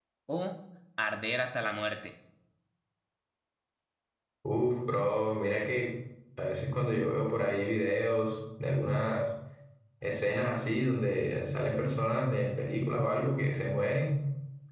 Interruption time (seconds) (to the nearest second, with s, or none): none